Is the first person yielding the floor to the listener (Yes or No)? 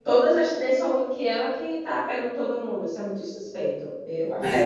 Yes